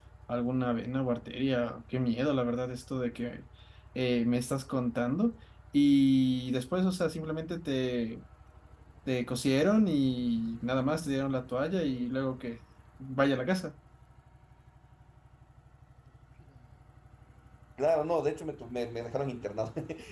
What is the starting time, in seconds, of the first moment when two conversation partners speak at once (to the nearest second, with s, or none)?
none